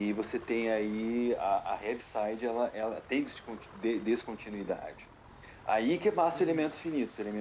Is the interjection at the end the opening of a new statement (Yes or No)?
No